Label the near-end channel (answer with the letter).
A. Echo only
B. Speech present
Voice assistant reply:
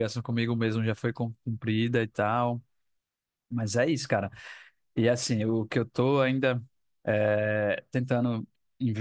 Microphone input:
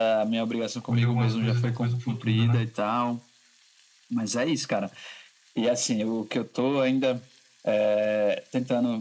B